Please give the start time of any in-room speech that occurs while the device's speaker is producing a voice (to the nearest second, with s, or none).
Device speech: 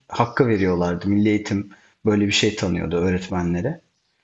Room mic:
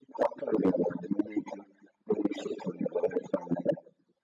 none